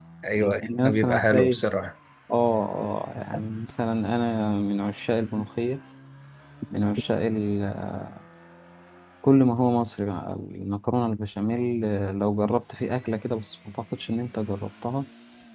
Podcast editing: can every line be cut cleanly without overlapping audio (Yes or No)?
No